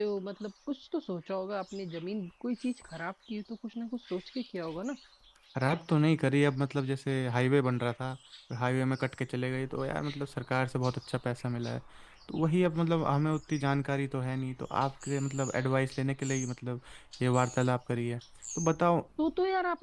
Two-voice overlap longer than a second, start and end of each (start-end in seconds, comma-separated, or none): none